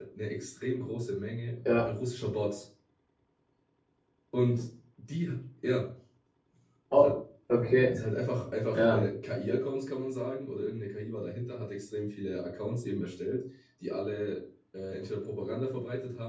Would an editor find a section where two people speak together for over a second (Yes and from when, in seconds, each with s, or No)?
No